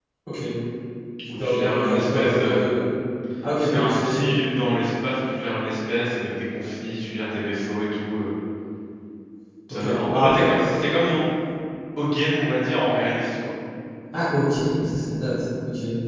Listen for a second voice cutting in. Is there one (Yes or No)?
Yes